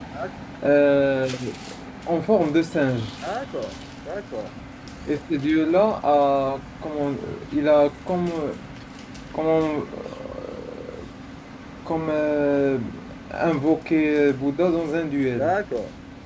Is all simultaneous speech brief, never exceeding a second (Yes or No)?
Yes